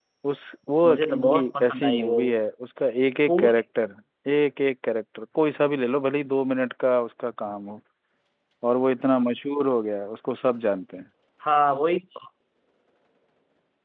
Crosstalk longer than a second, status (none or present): present